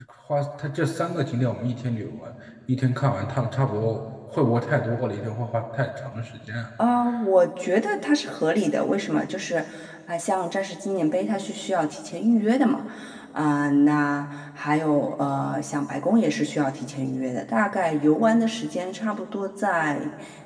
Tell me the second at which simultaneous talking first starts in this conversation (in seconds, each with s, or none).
none